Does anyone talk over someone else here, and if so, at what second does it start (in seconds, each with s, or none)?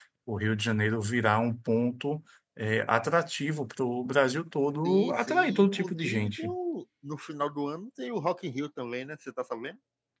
4.8 s